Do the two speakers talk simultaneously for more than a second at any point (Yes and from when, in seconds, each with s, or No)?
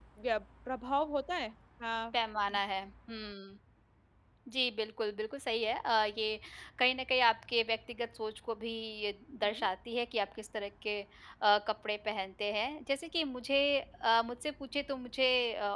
No